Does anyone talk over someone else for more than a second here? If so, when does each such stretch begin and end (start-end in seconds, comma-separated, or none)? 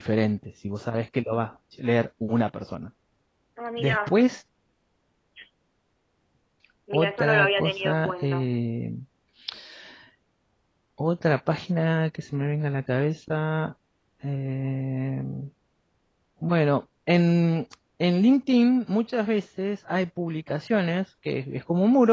6.9-8.5